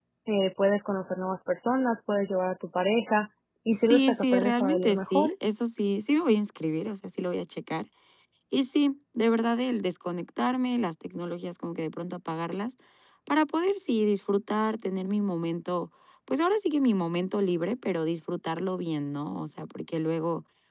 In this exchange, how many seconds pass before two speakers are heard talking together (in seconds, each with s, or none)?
3.7 s